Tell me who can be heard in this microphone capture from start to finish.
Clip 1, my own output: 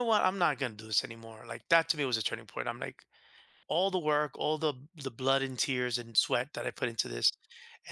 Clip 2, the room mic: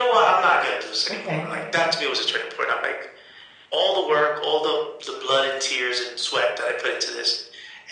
both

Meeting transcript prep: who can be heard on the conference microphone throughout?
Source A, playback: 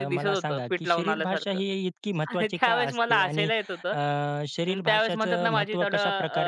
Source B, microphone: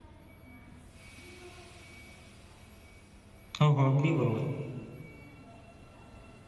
user only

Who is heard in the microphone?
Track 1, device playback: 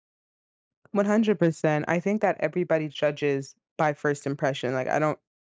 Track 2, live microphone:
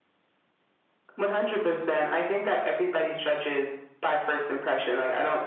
echo only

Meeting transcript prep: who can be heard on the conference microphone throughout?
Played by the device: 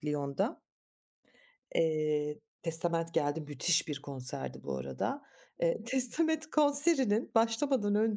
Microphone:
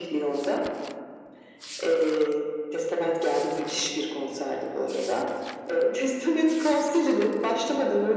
echo only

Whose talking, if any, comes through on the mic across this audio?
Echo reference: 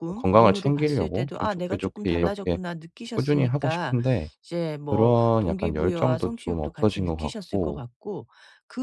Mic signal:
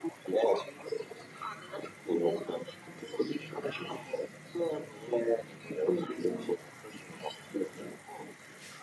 echo only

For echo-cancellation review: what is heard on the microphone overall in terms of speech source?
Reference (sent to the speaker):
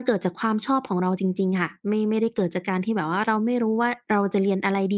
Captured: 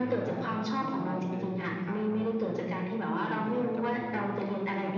both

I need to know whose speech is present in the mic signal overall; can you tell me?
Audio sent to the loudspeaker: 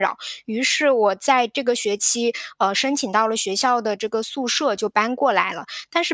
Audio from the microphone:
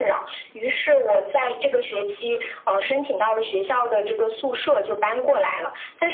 echo only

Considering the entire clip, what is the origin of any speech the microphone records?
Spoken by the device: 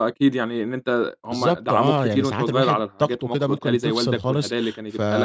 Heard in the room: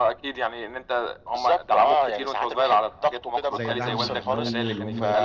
both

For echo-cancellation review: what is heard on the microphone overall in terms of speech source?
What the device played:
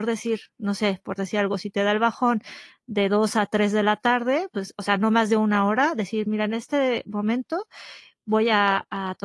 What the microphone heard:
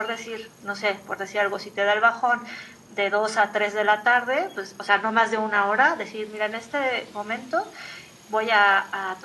echo only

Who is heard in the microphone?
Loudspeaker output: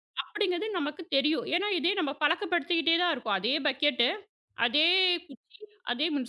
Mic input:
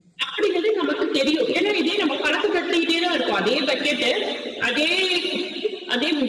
echo only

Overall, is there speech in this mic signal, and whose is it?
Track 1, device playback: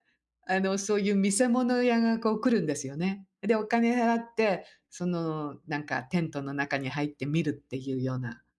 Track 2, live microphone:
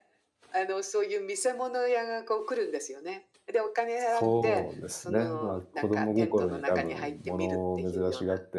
both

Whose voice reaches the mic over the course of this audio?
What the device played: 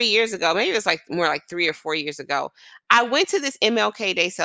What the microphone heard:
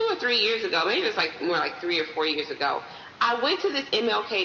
echo only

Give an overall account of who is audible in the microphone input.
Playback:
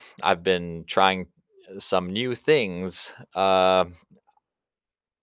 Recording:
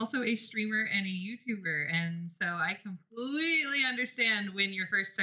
user only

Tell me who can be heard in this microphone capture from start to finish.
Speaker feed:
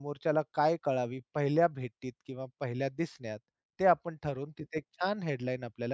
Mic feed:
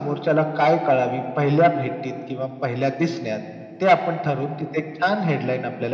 echo only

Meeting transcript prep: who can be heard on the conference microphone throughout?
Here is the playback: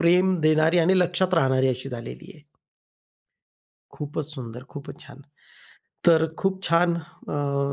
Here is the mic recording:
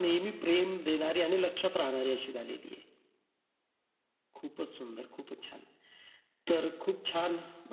echo only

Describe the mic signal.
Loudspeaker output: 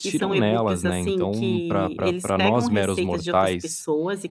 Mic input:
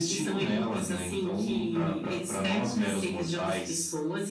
echo only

